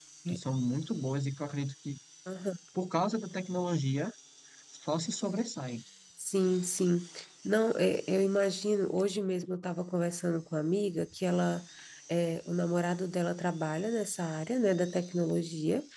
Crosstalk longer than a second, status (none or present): none